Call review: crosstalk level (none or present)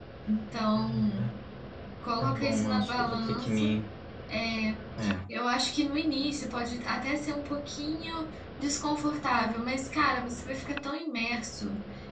present